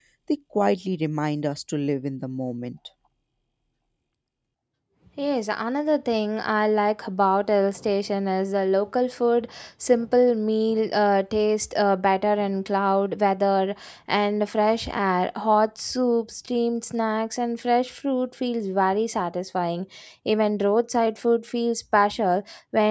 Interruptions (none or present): none